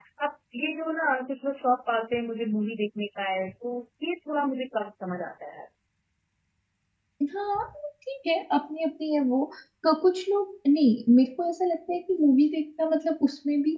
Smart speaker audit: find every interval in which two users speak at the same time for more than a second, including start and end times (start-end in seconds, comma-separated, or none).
none